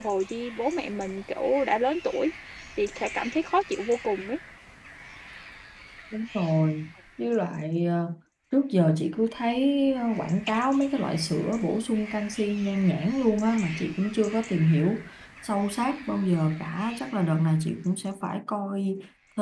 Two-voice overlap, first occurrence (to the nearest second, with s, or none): none